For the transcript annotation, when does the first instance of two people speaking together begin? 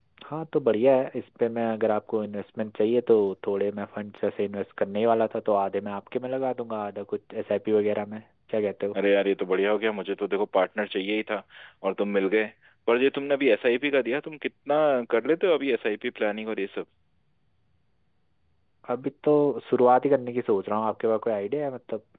none

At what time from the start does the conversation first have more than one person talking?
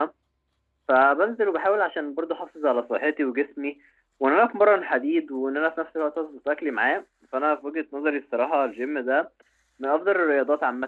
none

